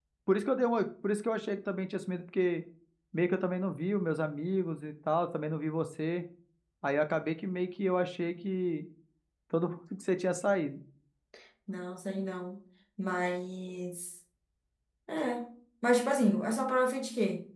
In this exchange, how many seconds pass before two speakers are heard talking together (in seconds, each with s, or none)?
none